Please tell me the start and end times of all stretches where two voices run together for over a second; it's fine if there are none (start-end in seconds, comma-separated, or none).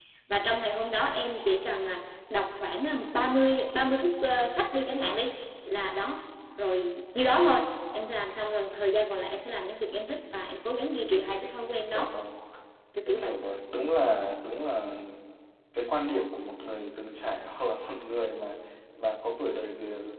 none